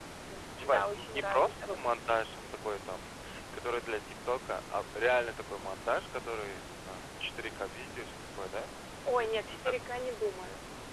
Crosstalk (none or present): present